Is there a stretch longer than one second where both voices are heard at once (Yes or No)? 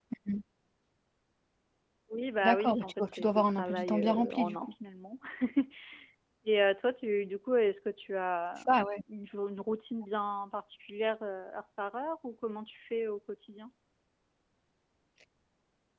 Yes